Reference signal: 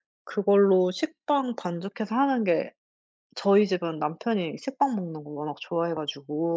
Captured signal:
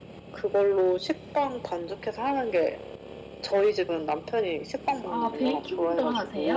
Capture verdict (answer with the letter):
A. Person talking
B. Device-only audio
A